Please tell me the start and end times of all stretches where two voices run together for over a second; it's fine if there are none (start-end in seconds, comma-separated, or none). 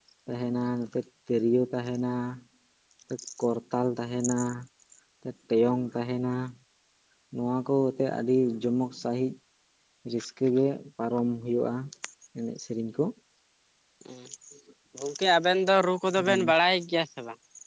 none